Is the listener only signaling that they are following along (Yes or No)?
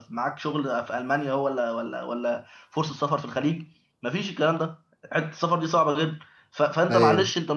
Yes